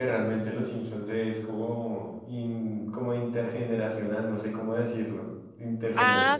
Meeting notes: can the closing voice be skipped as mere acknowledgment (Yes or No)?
No